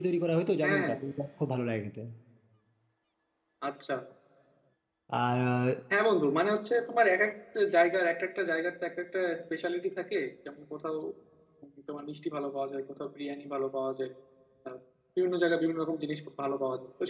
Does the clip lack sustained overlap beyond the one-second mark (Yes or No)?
Yes